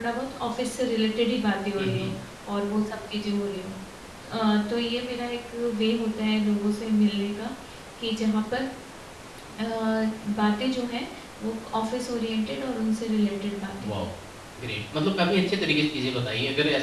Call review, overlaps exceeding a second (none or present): none